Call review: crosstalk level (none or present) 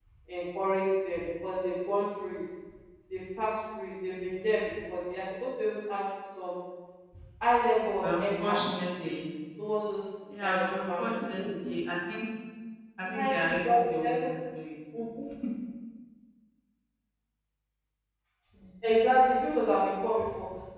present